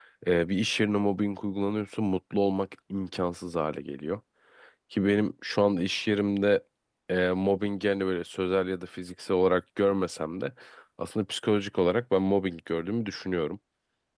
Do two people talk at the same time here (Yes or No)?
No